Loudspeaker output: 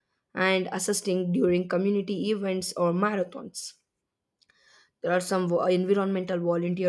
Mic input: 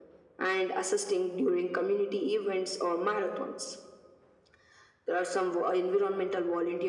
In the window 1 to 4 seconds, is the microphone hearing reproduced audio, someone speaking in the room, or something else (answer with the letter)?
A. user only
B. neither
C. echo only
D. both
C